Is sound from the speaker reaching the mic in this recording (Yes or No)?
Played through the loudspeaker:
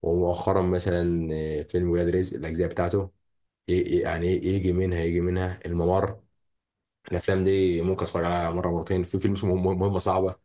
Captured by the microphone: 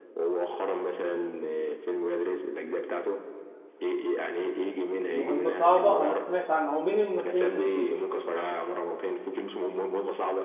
Yes